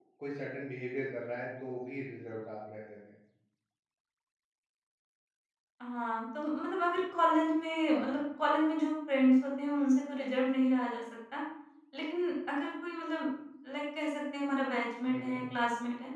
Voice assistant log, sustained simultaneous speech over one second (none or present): none